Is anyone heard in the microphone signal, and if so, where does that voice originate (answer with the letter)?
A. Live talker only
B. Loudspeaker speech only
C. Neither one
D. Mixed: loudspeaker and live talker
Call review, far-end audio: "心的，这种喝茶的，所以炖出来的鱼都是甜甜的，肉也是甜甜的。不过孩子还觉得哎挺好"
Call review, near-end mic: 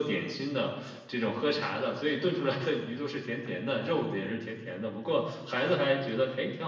B